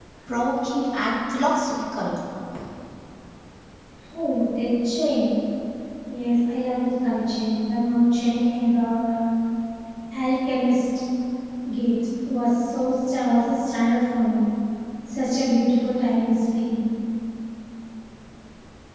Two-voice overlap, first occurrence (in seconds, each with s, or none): none